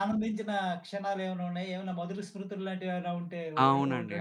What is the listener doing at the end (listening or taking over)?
taking over